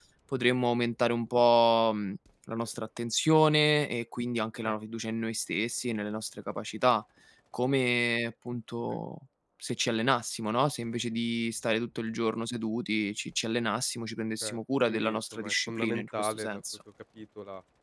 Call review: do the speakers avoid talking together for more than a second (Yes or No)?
No